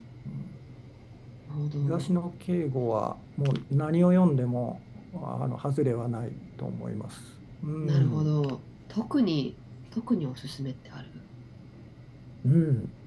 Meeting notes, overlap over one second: none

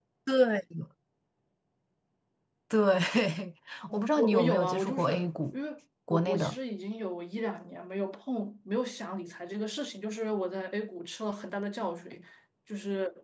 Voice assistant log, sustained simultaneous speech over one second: present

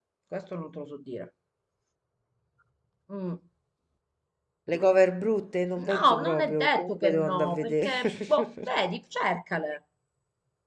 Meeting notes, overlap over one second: present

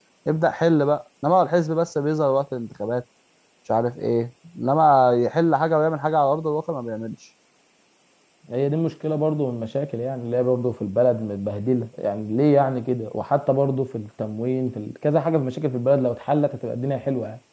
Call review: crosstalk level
none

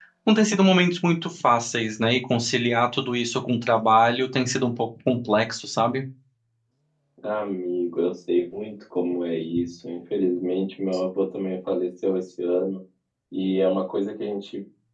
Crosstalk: none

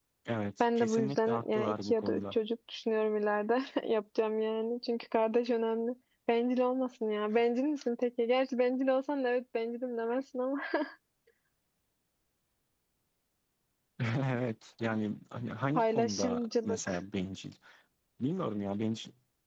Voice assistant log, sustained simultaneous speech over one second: present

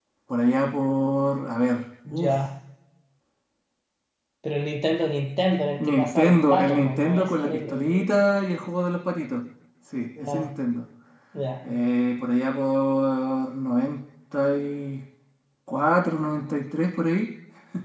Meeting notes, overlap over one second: present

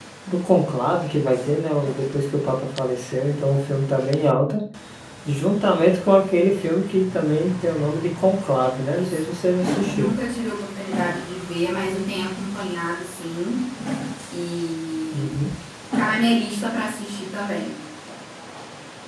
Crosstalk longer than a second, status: none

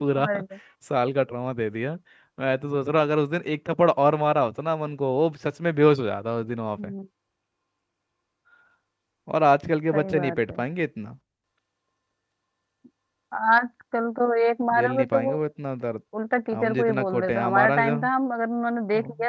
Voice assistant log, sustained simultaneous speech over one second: present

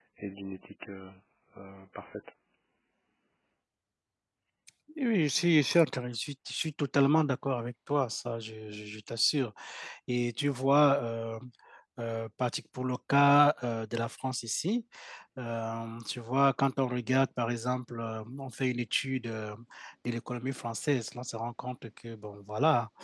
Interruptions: none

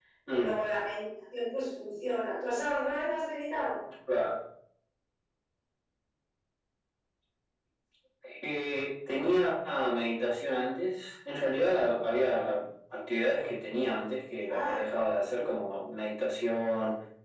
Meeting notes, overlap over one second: none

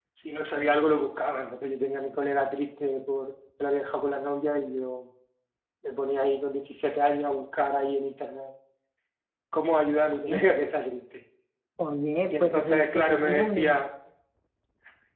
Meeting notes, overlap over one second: present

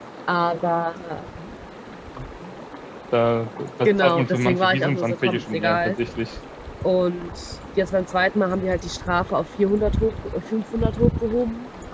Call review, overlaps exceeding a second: present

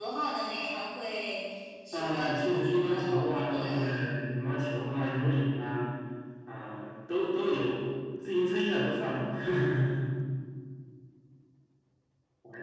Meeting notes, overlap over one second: present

